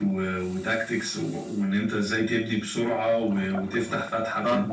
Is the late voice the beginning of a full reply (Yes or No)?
No